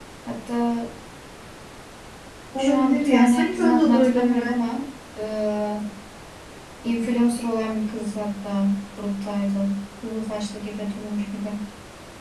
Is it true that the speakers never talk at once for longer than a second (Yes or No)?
No